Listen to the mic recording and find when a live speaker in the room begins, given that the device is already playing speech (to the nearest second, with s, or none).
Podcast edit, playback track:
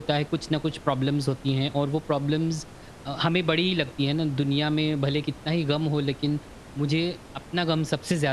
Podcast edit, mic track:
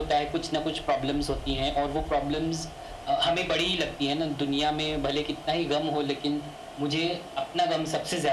none